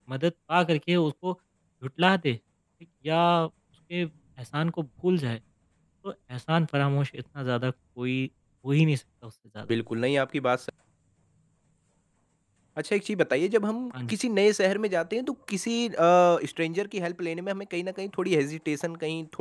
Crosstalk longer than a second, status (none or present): none